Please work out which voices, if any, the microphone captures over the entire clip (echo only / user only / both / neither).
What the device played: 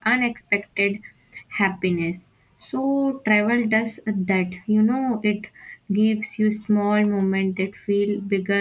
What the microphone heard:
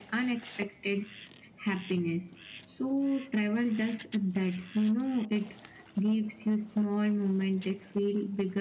echo only